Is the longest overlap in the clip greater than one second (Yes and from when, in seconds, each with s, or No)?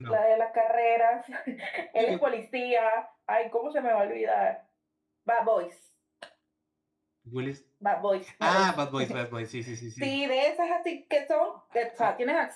No